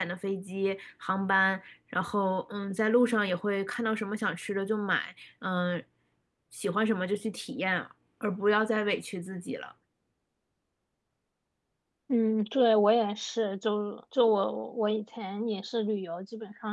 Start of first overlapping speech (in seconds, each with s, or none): none